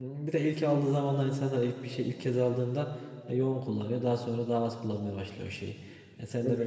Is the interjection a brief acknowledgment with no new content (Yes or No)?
Yes